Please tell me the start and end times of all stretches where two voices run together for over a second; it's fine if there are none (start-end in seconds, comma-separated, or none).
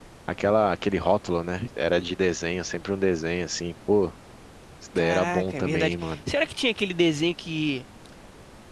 5.0-6.2